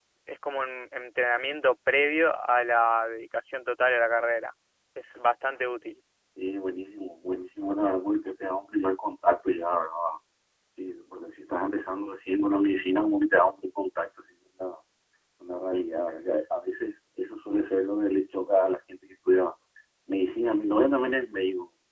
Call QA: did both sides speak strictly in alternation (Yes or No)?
Yes